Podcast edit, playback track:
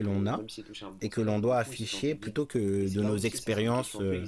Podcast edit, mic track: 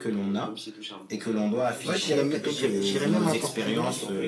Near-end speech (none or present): present